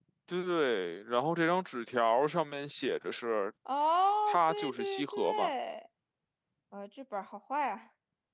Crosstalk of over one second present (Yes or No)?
Yes